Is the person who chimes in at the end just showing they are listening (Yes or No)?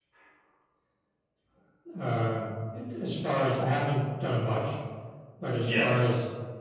Yes